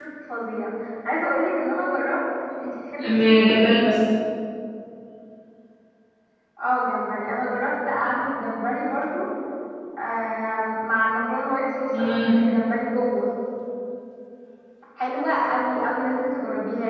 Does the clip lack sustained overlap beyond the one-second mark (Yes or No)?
Yes